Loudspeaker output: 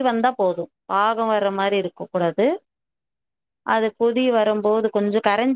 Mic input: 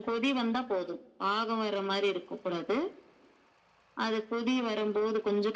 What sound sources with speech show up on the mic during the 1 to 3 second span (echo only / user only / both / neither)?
echo only